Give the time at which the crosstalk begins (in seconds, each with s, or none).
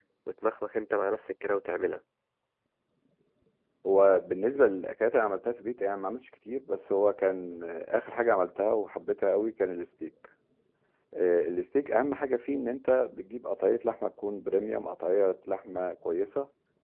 none